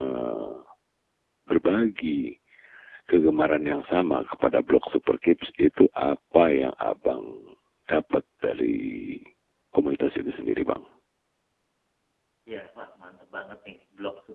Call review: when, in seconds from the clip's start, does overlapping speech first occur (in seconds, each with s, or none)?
none